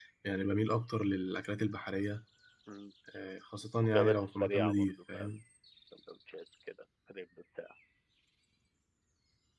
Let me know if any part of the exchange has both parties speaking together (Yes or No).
Yes